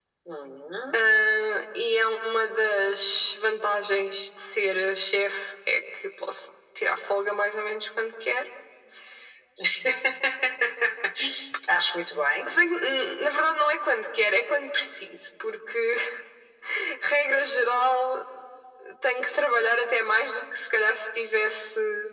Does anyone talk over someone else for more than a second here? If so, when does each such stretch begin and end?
none

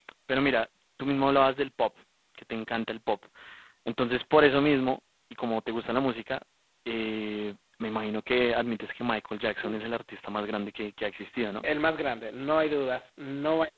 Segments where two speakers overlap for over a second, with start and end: none

